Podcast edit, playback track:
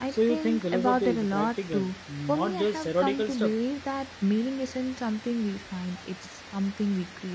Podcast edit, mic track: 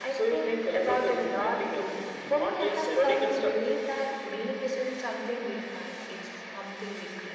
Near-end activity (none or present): none